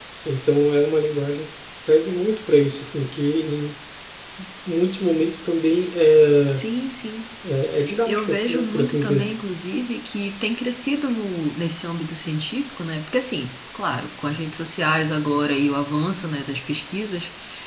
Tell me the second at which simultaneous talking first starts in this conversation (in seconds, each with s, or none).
8.1 s